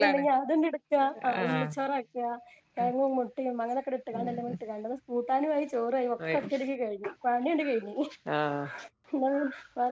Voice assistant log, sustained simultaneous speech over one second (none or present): none